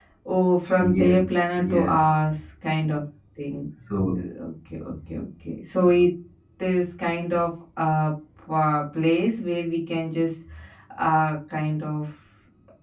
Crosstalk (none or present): present